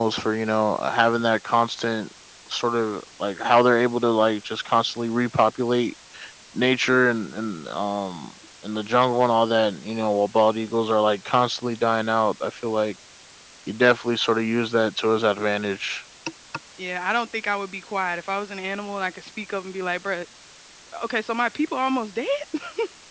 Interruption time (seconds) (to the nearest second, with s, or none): none